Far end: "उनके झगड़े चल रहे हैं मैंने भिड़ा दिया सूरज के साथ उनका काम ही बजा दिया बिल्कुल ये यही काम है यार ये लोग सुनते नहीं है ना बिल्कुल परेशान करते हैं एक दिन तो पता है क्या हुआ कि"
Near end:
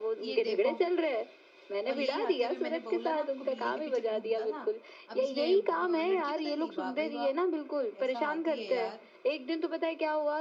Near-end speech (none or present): present